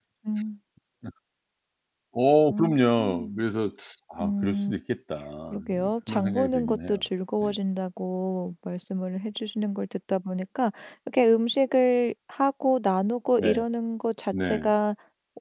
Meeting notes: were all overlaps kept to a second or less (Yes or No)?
No